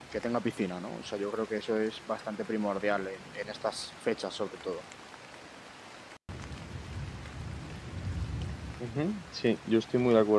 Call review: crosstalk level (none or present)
none